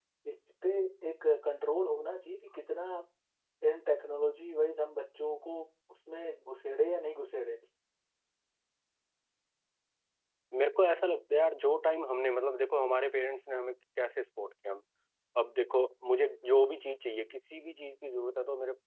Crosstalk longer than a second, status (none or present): none